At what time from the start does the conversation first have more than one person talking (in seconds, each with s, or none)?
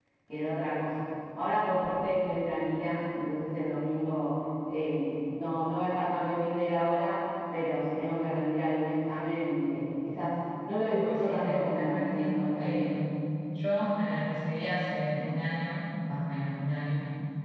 10.8 s